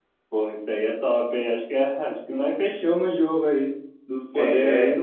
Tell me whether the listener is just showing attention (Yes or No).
Yes